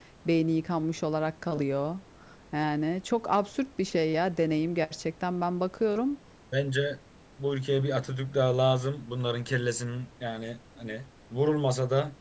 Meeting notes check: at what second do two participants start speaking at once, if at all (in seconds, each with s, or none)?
none